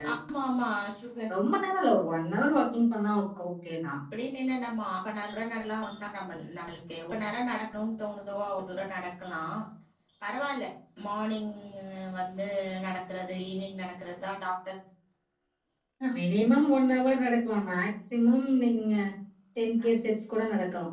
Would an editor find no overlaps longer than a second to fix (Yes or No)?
Yes